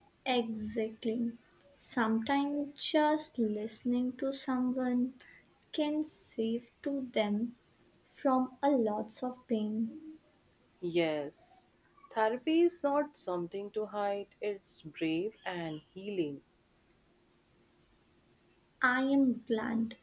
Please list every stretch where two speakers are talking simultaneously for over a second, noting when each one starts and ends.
none

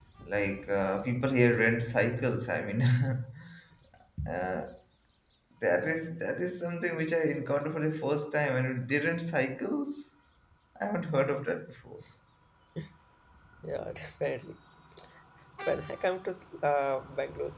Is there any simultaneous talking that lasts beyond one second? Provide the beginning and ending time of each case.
none

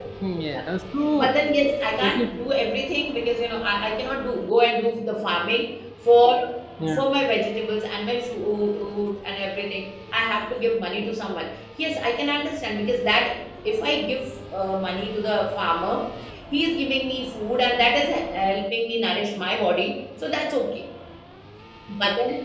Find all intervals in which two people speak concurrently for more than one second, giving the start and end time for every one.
none

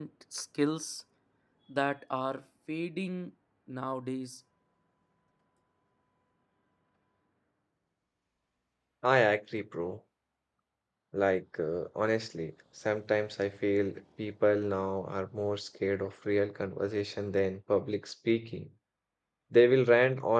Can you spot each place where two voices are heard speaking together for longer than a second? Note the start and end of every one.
none

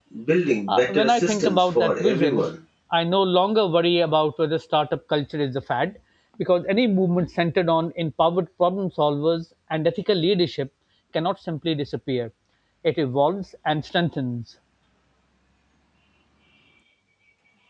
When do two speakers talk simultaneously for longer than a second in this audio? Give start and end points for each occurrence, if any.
0.7-2.5

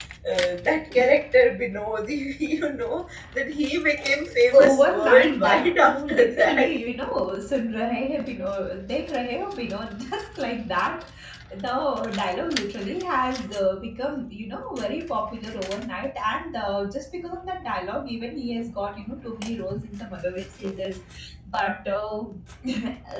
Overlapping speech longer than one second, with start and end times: 4.6-6.7

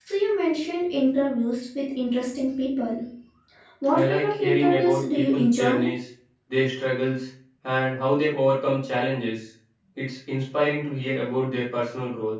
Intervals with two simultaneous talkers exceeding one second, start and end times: 3.9-5.9

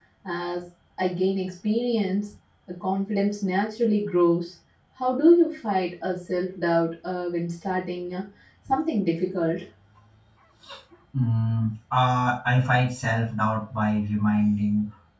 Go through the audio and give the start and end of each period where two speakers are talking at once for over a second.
none

